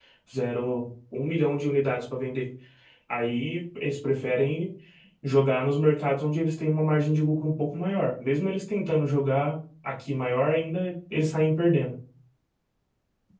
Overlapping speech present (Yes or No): No